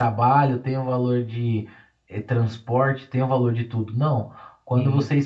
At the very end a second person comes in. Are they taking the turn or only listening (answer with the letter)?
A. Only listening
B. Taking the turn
A